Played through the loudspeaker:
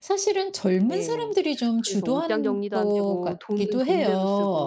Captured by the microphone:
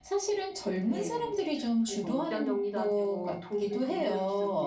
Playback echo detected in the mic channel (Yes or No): Yes